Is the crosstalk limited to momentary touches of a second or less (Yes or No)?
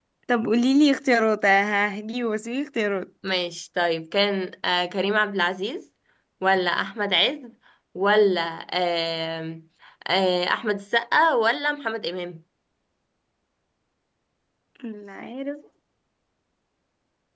Yes